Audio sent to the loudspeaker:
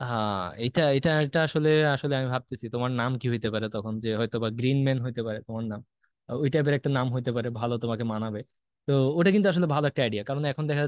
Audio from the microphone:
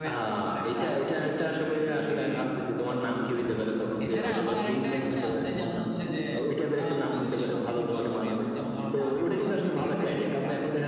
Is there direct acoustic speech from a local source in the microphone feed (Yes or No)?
Yes